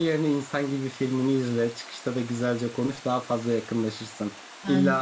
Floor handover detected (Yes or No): No